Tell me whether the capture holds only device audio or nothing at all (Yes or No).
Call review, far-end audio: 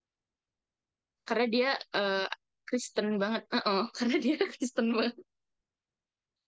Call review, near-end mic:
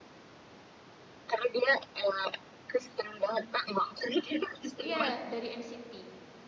No